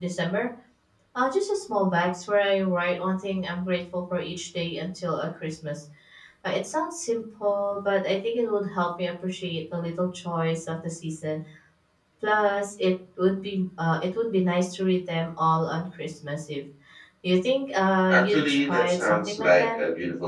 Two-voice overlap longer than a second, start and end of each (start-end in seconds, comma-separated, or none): 18.1-19.8